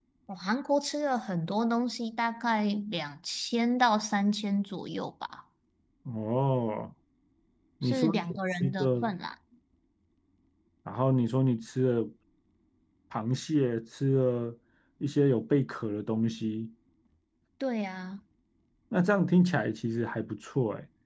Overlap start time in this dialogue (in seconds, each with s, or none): 7.8 s